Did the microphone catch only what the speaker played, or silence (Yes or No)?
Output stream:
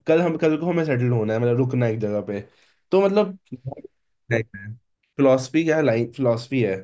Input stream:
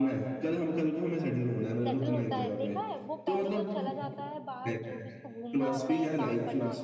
No